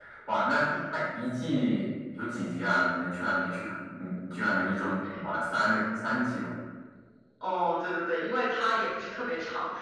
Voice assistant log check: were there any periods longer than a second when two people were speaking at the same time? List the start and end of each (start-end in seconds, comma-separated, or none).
none